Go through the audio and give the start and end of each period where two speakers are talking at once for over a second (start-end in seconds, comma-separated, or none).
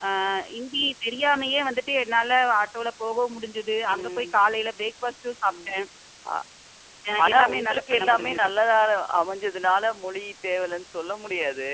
7.2-8.5